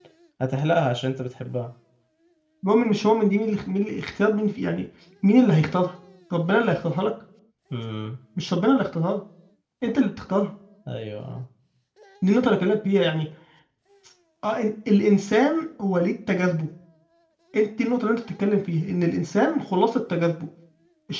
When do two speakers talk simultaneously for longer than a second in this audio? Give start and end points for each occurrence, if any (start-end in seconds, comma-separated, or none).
none